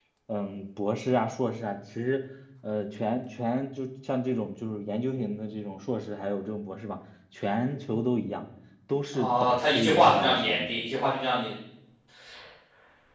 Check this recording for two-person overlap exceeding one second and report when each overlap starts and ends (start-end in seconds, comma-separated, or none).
9.1-10.7